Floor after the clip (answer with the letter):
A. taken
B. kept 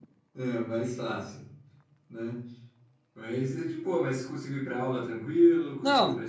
A